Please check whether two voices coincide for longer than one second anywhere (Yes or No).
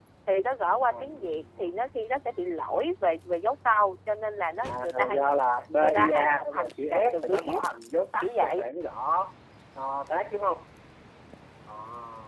Yes